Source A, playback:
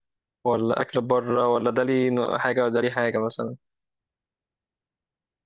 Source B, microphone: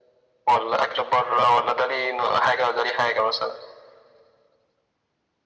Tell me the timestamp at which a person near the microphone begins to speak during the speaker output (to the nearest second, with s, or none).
none